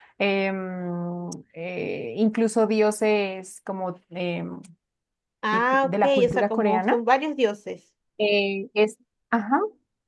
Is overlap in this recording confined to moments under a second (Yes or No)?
No